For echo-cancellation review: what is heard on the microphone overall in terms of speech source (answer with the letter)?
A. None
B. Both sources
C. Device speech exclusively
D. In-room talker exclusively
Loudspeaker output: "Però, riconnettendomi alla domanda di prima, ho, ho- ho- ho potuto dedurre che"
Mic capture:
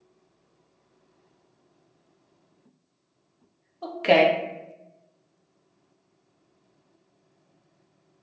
D